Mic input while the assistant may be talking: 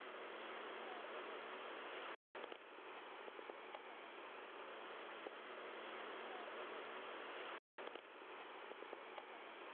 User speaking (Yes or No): No